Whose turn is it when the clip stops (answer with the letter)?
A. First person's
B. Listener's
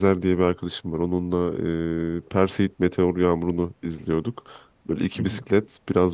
A